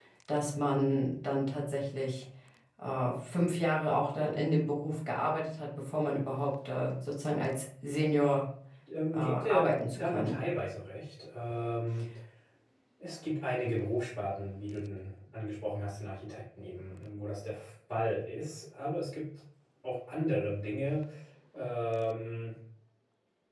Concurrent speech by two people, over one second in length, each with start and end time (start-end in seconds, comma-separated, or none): 9.1-10.4